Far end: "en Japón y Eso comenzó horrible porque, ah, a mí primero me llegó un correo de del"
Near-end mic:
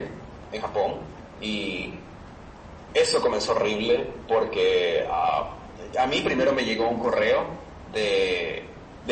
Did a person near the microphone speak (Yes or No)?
No